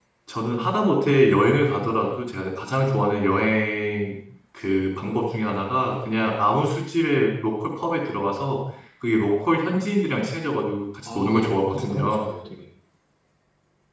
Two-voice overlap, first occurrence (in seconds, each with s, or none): 11.1 s